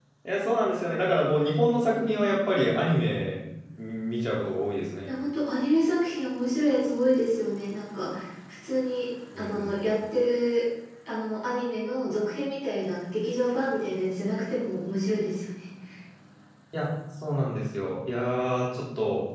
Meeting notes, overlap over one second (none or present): none